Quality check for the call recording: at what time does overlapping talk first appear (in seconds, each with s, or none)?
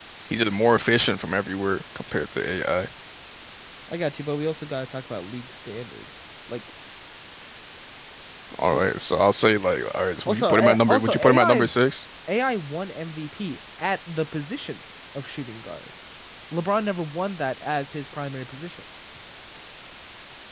10.3 s